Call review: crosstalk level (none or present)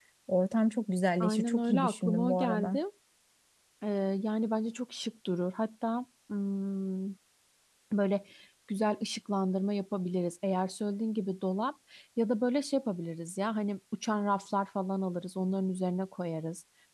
present